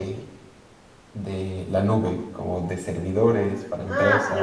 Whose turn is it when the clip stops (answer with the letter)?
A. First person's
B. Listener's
B